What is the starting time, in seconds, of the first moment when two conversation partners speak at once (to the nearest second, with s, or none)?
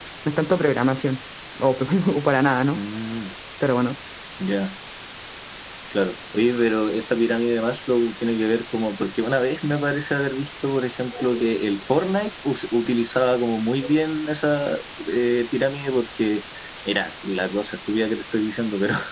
none